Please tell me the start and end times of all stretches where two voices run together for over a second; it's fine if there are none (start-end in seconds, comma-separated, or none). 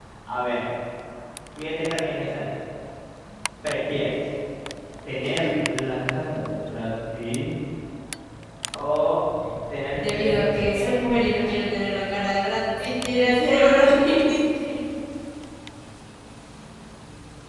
10.0-11.9